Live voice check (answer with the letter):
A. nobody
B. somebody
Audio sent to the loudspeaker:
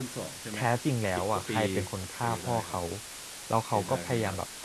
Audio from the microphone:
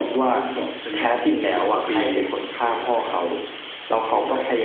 A